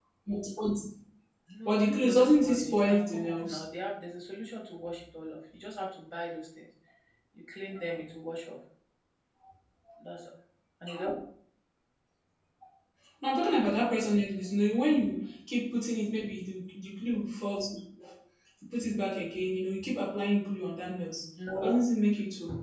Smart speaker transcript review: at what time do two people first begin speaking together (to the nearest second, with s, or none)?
2 s